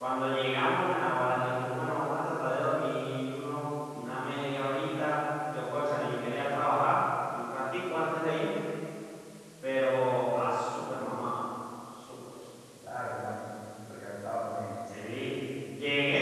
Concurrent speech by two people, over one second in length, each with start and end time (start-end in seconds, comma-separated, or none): none